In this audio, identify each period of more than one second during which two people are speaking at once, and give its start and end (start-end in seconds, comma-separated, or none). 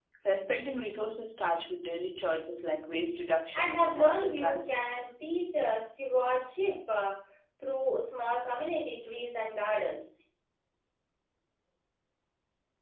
3.5-4.9